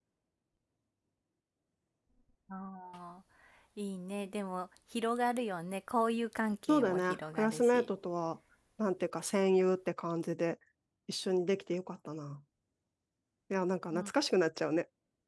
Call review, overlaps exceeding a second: present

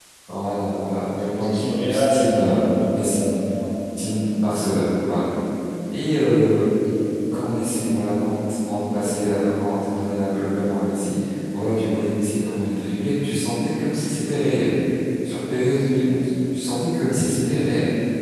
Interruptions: present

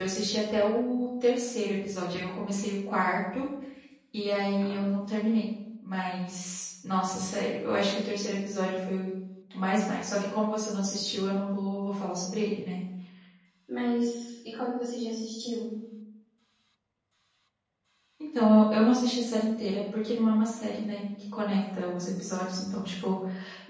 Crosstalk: none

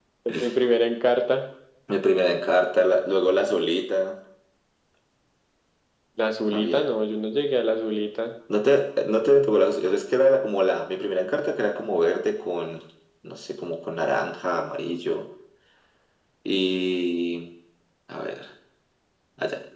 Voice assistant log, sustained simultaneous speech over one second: none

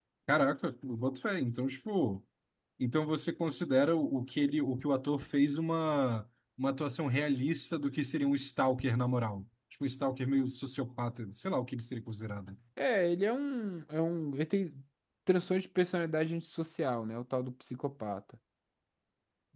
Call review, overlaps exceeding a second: none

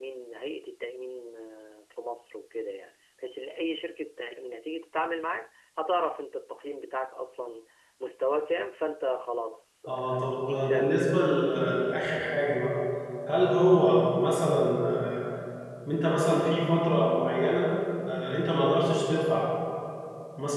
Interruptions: present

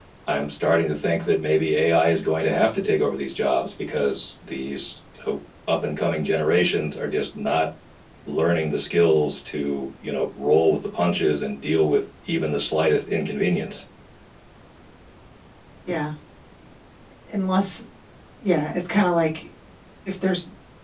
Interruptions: none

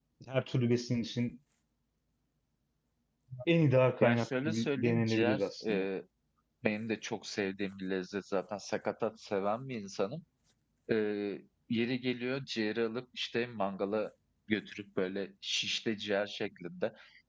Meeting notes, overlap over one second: present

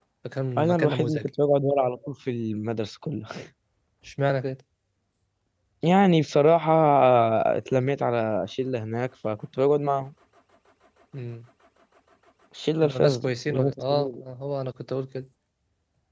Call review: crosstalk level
present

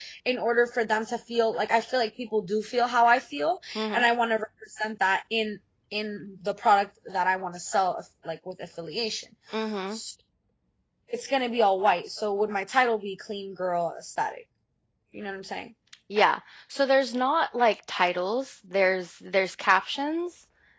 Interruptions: none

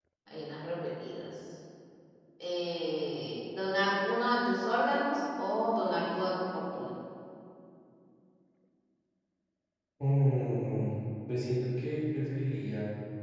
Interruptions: none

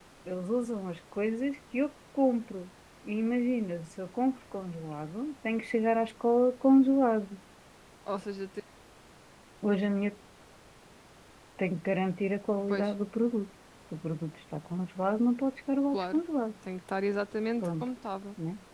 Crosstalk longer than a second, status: none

